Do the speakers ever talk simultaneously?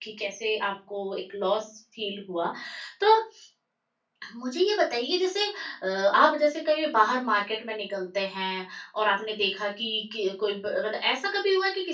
No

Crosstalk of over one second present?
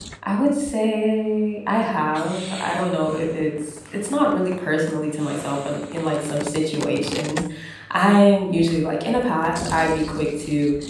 No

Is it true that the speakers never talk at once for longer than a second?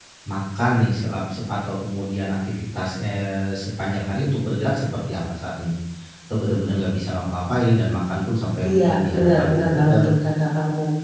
No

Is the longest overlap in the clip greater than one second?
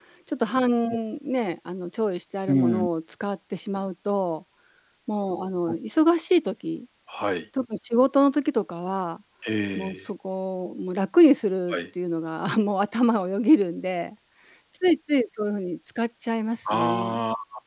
No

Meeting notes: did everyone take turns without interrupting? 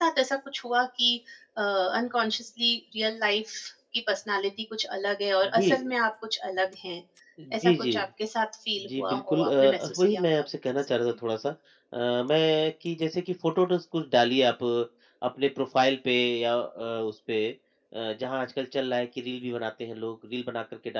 No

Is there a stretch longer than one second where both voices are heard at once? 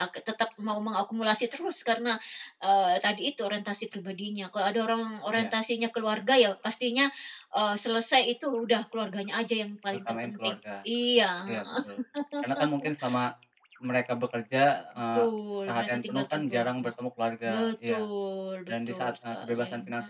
Yes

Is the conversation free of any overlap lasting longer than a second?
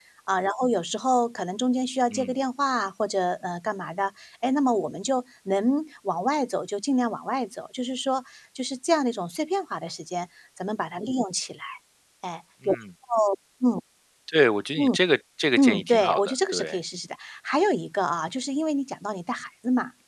No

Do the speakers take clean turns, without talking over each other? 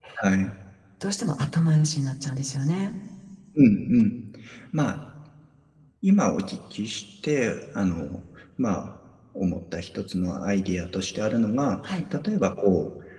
Yes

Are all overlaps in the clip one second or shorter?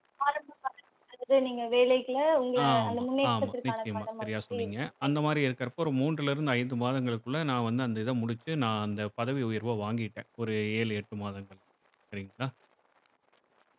No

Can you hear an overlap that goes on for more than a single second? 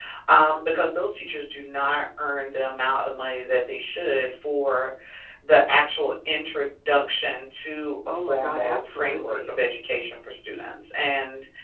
Yes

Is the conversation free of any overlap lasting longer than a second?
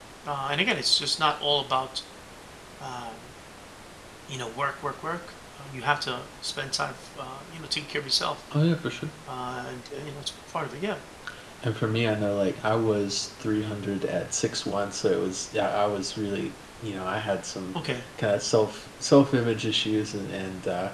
Yes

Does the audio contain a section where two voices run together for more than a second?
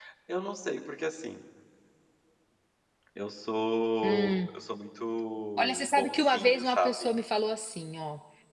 Yes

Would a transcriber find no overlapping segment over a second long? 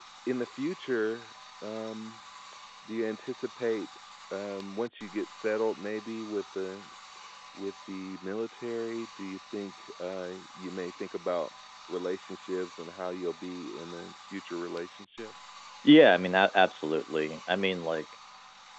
Yes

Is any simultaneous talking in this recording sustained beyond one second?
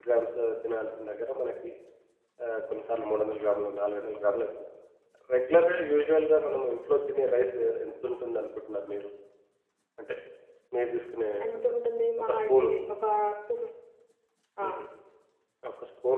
No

